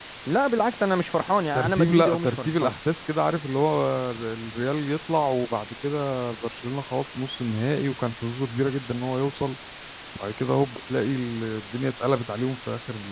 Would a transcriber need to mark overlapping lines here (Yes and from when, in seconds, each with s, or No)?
Yes, from 1.6 s